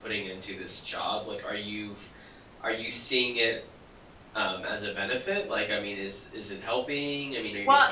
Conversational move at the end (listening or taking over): taking over